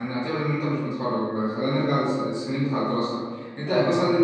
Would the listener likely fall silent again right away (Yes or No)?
Yes